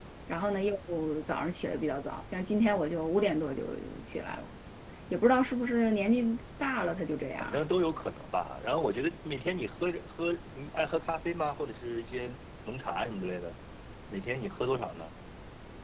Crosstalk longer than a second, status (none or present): none